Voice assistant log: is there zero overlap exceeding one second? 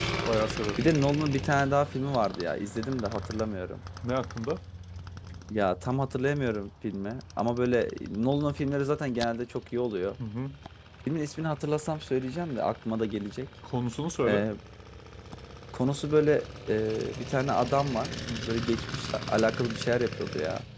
Yes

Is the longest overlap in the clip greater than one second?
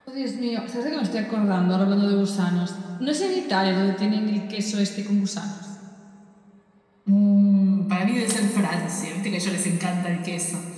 No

